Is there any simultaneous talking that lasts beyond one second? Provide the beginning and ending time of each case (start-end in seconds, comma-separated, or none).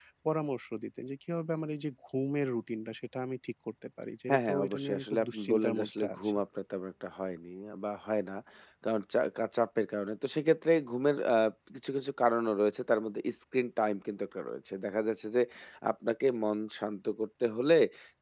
4.3-6.4